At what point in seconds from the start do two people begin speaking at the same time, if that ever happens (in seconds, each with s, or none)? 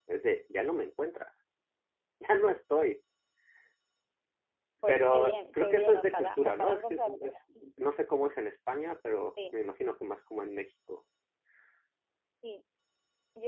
4.9 s